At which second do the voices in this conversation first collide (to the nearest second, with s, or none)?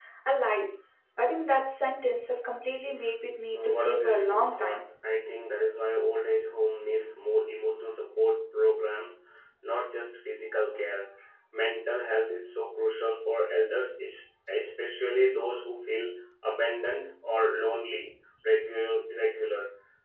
4 s